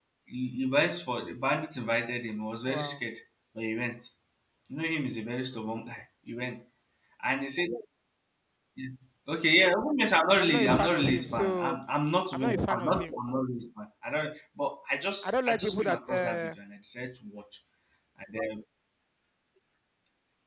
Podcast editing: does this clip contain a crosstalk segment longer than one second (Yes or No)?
Yes